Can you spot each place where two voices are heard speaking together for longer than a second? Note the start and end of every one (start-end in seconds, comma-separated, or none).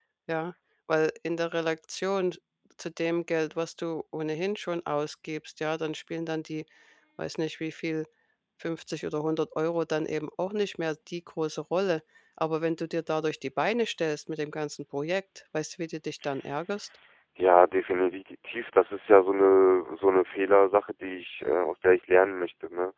none